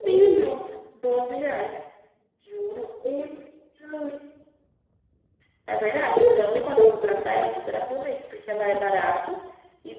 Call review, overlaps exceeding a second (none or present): present